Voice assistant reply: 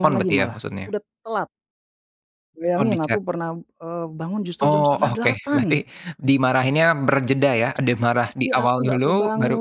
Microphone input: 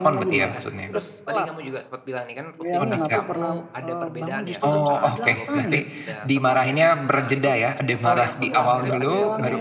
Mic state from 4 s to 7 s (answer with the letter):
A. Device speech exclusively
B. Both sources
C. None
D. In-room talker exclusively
B